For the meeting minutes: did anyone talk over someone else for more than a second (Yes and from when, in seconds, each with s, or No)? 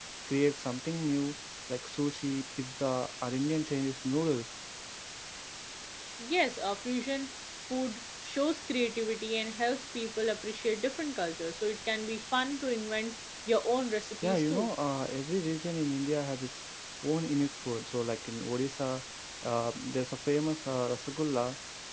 No